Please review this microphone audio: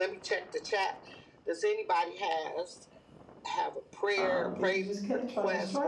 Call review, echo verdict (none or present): present